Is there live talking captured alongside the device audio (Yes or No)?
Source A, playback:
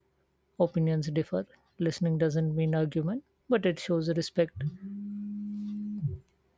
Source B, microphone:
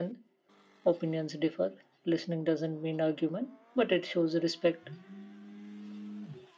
No